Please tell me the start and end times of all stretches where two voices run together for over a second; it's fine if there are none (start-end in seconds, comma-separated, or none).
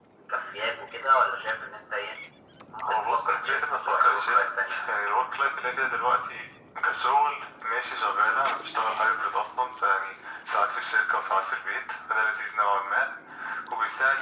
2.8-4.4